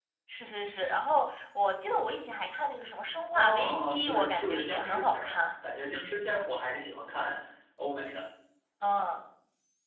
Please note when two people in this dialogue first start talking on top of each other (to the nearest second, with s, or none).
3 s